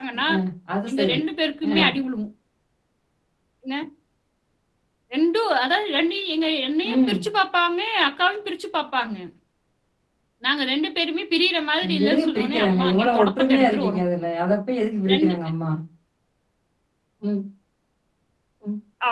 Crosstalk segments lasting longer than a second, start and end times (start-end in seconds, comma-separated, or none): 12.1-14.0